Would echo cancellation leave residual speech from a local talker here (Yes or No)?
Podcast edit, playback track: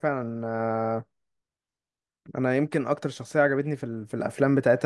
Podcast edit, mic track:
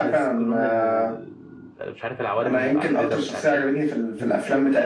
Yes